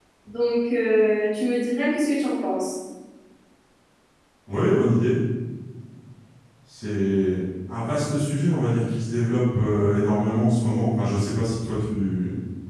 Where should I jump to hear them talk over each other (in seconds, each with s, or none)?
none